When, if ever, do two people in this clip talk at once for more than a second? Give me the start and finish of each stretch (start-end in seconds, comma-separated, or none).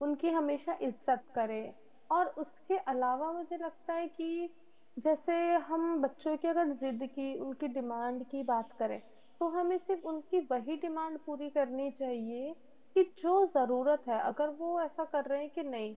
none